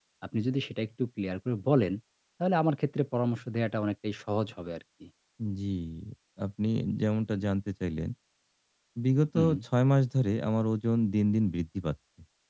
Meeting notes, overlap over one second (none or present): none